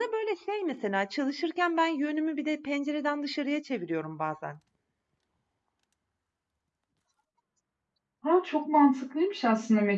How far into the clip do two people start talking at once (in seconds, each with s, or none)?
none